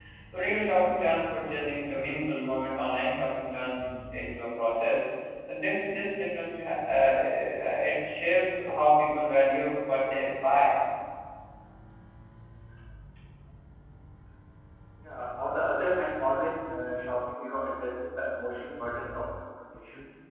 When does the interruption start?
none

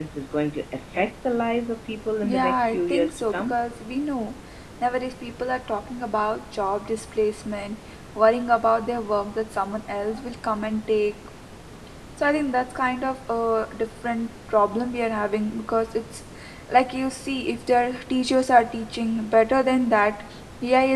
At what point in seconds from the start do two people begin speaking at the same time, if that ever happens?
2.2 s

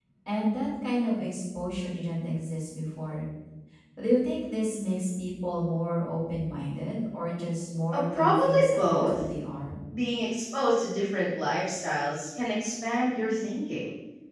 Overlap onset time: 7.9 s

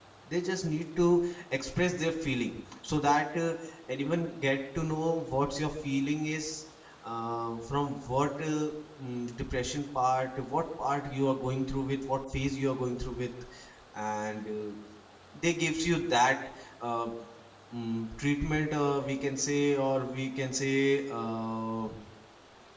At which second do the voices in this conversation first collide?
none

